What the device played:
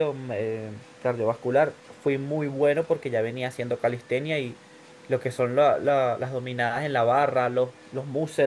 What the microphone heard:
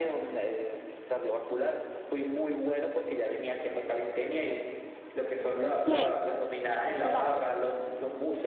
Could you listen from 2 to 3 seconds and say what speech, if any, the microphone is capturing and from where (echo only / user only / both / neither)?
echo only